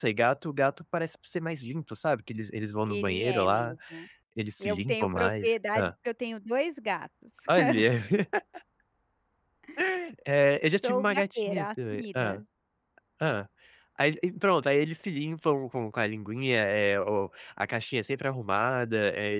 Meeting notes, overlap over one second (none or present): present